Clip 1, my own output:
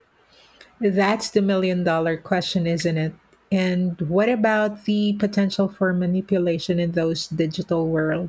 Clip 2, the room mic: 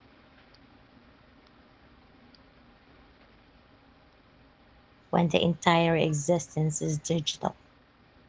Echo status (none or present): none